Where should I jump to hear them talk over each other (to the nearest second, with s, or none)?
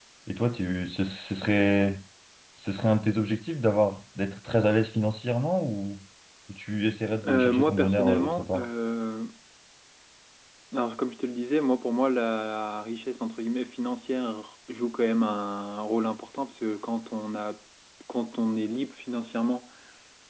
7 s